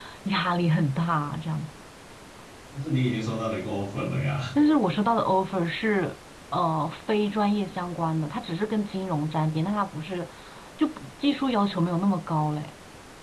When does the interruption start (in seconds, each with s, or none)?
none